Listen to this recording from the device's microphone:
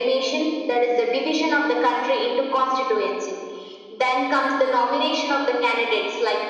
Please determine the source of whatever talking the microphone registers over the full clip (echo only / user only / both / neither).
both